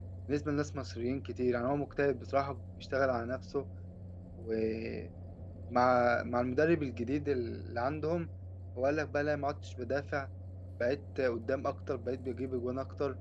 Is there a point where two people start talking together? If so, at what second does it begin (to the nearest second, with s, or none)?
none